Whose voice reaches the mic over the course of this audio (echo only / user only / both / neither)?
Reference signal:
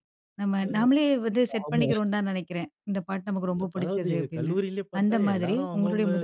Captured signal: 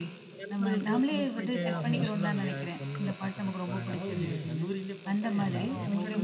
both